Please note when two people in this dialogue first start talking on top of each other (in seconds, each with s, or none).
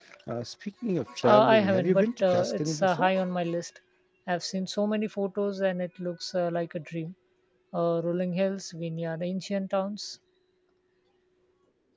1.2 s